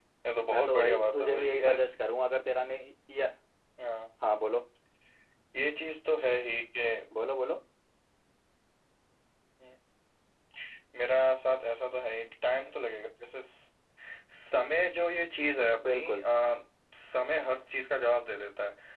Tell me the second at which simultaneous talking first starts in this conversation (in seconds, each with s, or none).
0.5 s